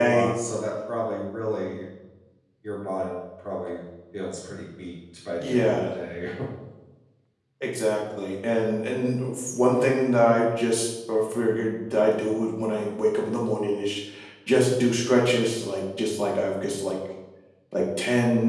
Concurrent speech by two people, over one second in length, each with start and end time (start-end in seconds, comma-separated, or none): none